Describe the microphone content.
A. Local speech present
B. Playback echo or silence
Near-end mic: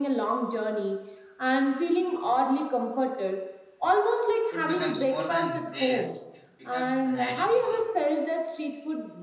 A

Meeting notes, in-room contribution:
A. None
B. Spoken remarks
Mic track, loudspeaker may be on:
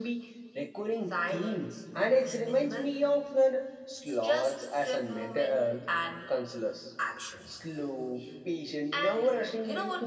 A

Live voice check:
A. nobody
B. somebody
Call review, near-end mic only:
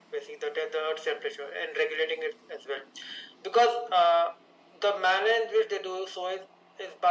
A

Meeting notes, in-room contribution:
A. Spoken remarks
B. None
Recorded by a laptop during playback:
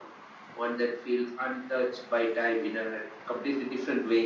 B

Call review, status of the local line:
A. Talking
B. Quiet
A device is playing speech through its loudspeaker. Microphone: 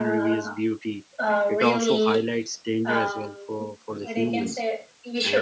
A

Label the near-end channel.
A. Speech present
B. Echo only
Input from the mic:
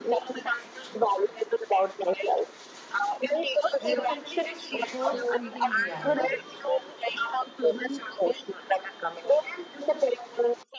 A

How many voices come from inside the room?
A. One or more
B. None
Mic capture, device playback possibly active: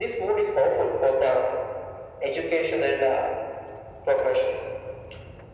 B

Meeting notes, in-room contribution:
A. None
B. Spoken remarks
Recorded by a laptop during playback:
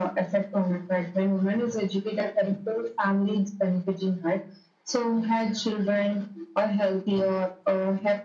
A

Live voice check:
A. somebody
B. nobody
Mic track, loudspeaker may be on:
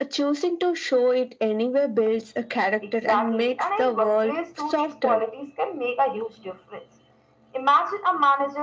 B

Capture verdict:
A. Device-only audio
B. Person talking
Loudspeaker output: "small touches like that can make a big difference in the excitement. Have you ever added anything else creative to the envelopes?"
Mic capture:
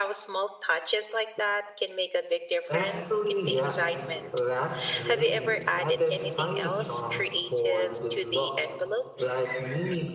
B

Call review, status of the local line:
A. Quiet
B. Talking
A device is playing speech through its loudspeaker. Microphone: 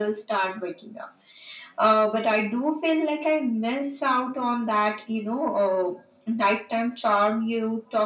A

